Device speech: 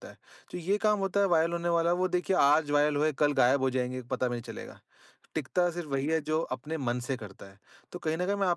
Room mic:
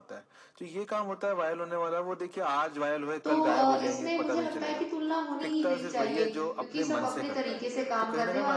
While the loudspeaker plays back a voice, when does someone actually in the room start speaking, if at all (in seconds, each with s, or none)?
3.2 s